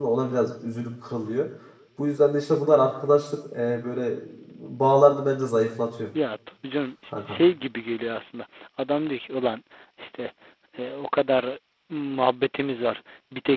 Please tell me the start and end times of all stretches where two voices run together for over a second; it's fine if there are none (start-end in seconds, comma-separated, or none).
none